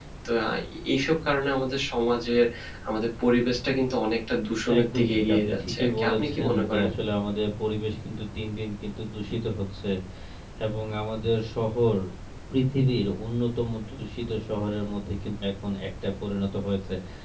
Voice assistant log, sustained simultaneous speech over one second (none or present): present